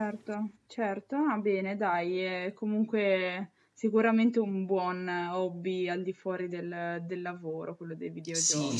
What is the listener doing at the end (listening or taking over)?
taking over